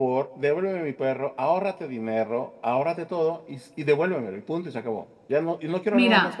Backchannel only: No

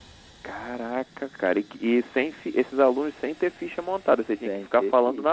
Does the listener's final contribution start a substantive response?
Yes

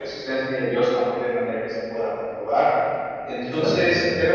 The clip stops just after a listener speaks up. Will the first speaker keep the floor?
Yes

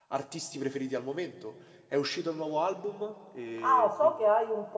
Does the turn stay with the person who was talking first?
No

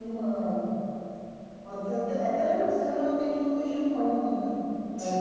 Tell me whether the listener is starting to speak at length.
Yes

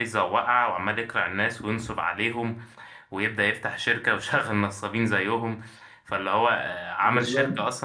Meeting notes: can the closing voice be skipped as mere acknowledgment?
Yes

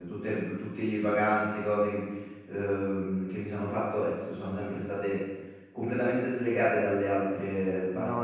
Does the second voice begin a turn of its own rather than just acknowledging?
Yes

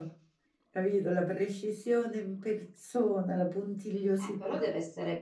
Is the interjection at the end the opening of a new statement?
Yes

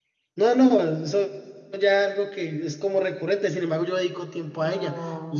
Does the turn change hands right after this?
Yes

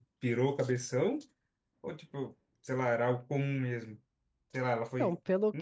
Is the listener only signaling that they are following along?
No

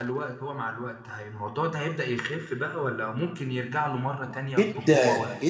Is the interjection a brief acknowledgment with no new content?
No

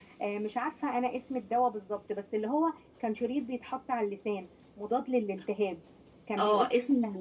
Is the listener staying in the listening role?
No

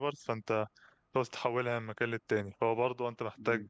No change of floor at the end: Yes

